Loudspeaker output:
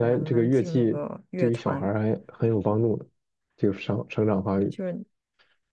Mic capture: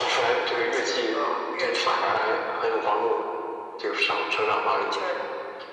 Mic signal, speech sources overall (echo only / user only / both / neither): echo only